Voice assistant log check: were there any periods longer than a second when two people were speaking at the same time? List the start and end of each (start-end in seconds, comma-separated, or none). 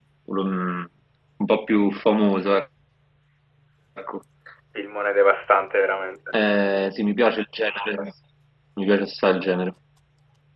none